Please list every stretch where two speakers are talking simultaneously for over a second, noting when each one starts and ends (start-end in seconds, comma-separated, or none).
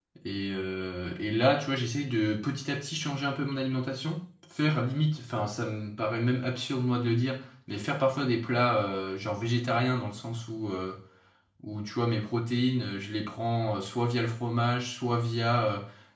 none